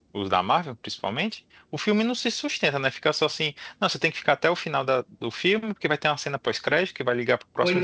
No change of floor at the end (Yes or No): Yes